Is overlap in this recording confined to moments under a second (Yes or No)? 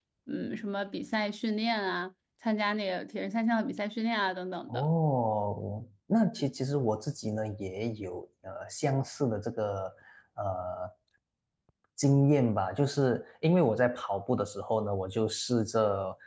Yes